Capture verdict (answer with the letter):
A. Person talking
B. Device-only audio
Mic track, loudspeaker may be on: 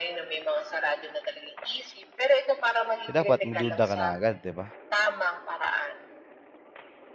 A